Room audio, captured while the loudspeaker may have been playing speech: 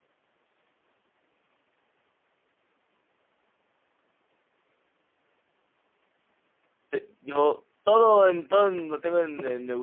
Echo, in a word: none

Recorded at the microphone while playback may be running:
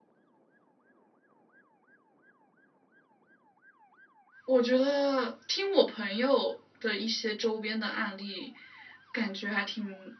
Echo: none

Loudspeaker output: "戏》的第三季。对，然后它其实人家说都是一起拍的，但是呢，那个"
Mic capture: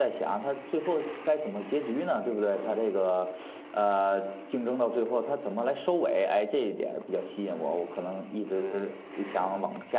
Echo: none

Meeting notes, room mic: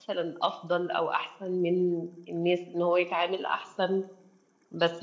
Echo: none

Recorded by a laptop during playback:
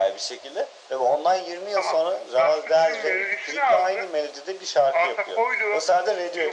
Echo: present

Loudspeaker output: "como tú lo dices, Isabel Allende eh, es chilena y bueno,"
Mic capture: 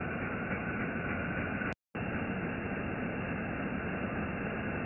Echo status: none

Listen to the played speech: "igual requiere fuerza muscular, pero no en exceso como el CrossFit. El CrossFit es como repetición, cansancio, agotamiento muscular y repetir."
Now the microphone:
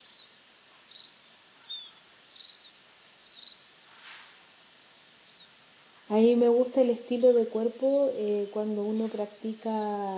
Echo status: none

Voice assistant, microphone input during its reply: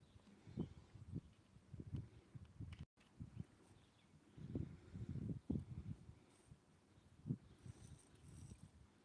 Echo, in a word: none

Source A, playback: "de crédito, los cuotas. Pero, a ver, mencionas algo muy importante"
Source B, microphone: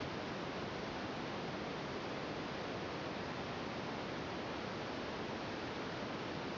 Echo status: none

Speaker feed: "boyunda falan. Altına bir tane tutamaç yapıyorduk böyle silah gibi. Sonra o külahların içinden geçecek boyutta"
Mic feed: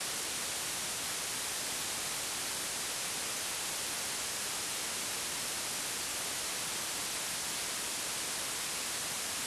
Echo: none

